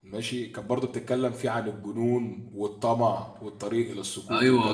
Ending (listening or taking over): taking over